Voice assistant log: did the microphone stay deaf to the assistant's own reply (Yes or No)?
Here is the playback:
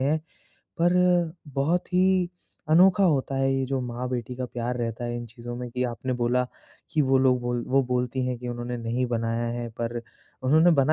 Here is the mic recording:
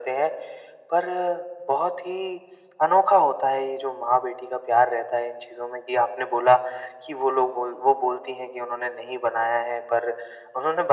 No